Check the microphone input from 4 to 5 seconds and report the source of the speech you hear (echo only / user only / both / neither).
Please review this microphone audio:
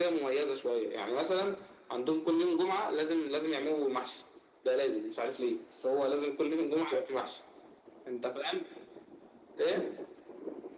echo only